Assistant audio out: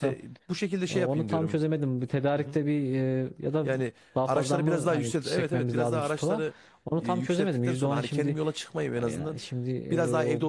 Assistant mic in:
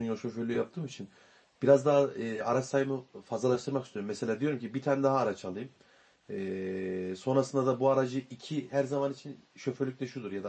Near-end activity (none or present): present